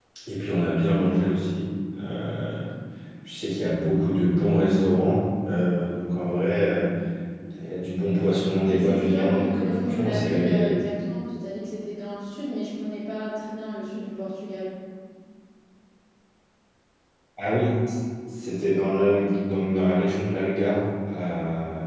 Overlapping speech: Yes, from 8.6 s

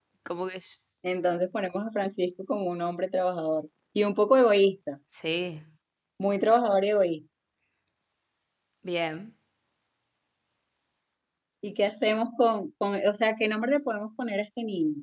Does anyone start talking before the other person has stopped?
No

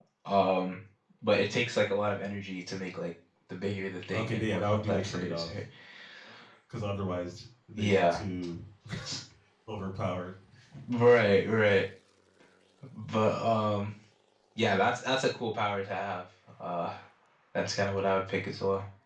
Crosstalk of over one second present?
Yes, from 4.1 s

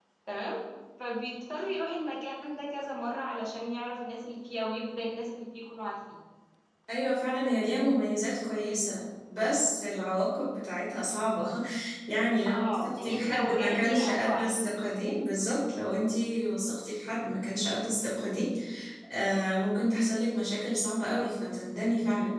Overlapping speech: Yes, from 12.5 s

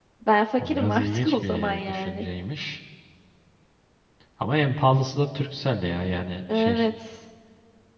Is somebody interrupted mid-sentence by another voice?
Yes, from 0.6 s

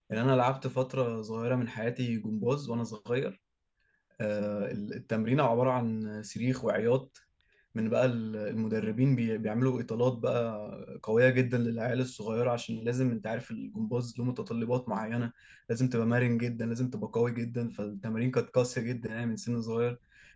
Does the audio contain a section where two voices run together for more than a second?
No

